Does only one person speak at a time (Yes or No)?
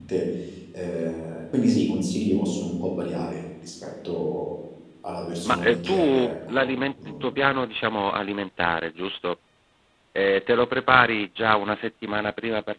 No